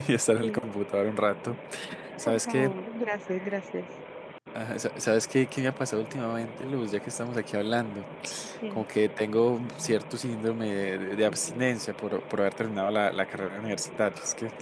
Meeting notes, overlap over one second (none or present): none